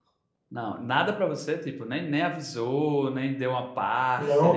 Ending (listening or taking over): taking over